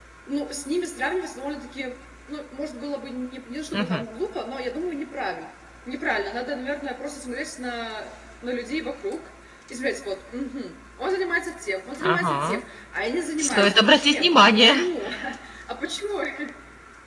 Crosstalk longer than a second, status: present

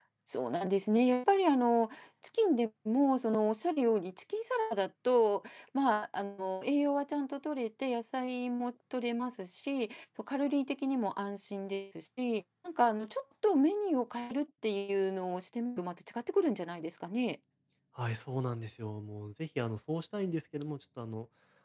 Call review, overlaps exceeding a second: none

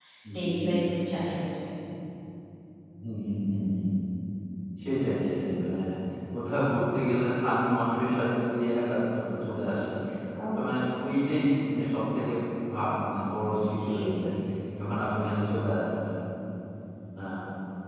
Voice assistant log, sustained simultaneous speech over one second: none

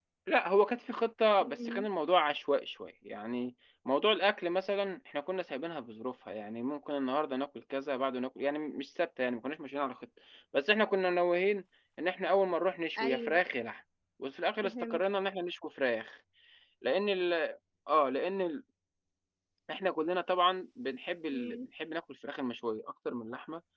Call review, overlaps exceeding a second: none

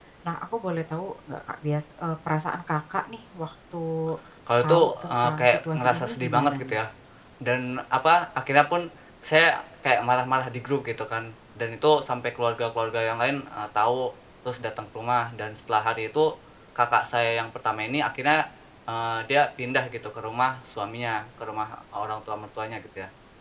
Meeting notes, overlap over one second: present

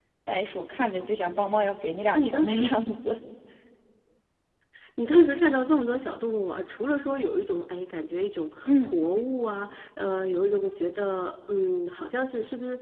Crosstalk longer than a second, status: none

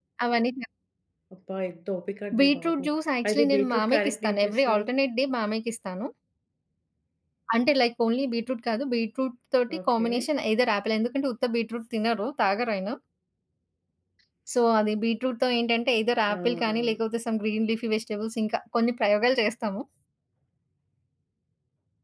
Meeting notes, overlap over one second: present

